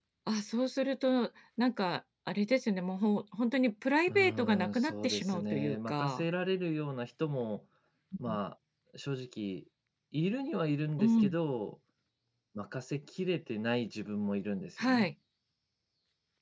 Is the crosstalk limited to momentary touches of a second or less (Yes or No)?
No